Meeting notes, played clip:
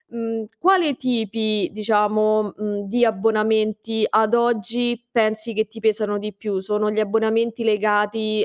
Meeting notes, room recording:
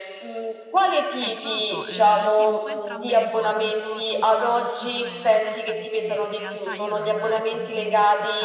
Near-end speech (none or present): present